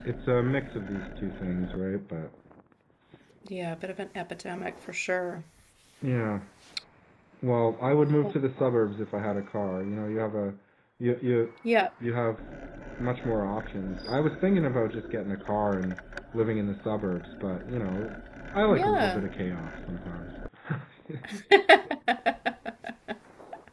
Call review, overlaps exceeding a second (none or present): none